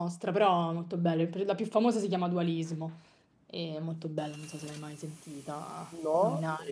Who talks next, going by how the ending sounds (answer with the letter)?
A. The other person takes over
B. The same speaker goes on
A